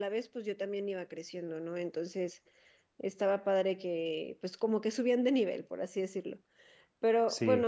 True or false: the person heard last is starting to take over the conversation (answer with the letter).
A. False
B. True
A